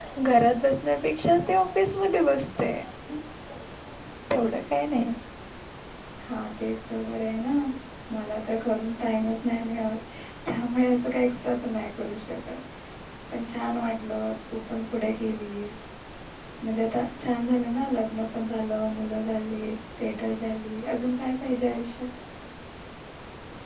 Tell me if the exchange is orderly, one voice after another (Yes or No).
Yes